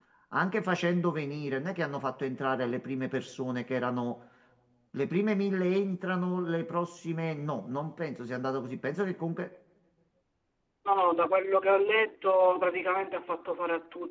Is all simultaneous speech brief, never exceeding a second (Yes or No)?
Yes